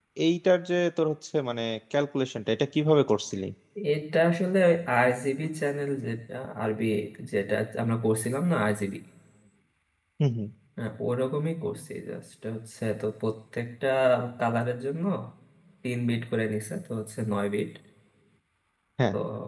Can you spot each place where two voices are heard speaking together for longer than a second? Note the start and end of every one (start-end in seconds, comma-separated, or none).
none